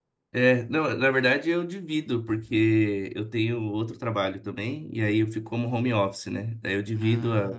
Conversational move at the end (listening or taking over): listening